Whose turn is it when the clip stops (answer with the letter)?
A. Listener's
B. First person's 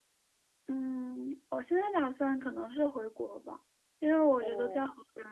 B